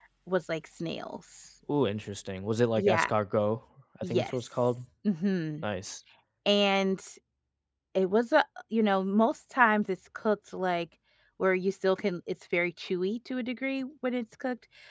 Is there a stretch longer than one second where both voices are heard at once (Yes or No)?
No